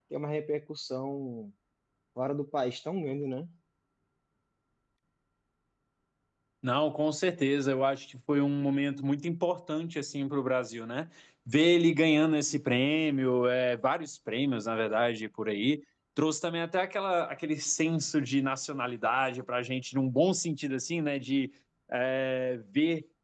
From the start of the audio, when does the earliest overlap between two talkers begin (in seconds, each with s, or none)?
none